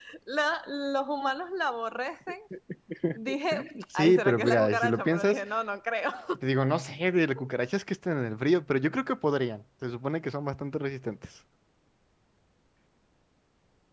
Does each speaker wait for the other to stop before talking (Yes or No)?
No